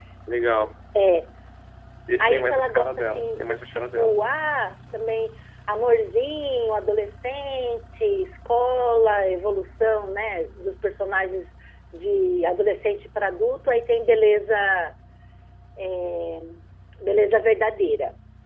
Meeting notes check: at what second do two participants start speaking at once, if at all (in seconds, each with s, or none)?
2.2 s